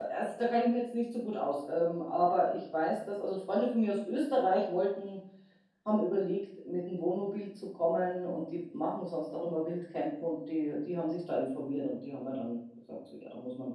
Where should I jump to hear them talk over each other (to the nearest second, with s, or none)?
none